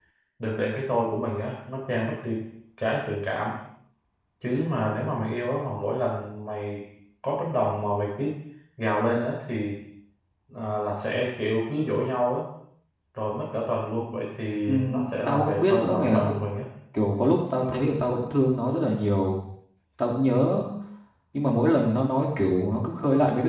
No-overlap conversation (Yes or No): No